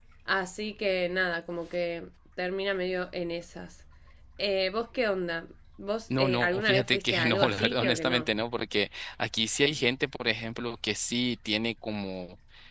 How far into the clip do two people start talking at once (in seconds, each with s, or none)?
6.1 s